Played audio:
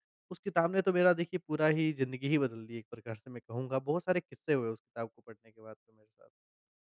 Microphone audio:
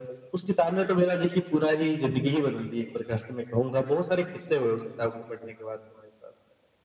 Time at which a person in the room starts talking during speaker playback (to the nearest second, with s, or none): none